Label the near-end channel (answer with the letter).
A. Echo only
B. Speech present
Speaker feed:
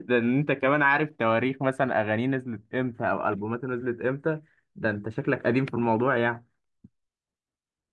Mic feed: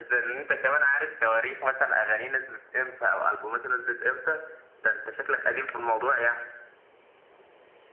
A